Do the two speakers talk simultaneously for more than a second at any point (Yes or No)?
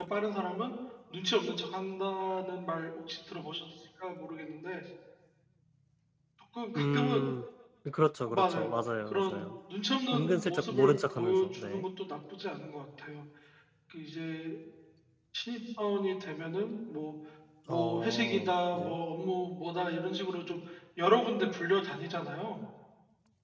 Yes